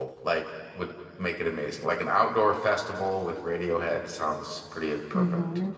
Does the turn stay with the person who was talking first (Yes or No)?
No